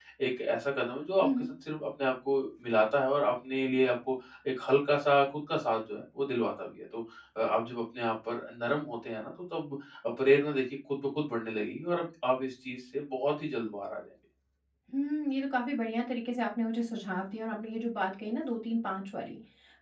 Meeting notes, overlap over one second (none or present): none